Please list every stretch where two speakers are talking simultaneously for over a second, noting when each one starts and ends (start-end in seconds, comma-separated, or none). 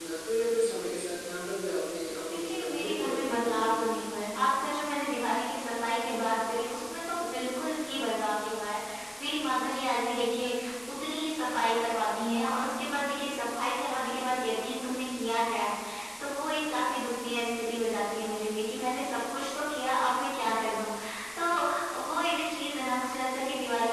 2.3-4.0